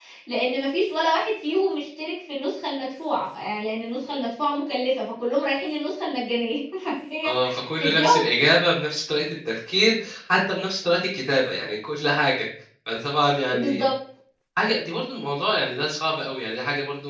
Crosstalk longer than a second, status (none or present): none